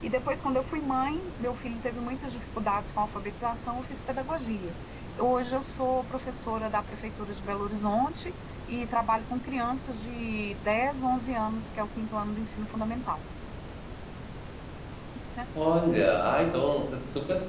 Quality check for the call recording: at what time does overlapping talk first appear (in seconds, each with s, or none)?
none